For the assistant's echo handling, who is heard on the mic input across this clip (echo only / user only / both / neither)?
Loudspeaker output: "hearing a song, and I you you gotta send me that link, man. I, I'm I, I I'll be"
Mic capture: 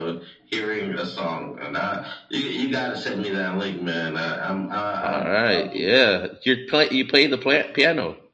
both